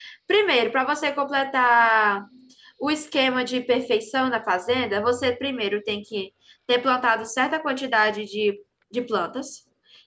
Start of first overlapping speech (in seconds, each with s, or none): none